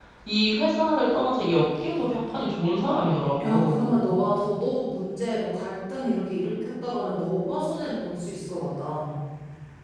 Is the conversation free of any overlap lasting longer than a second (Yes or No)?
Yes